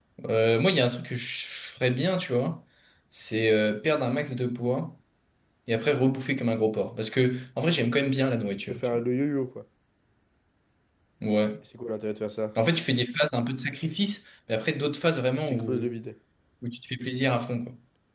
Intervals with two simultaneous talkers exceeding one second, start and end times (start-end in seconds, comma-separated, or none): none